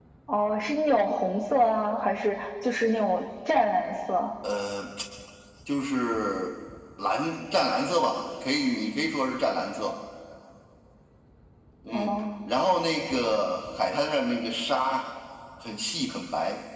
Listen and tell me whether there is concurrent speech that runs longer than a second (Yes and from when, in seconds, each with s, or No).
No